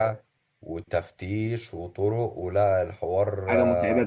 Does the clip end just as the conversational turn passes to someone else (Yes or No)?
Yes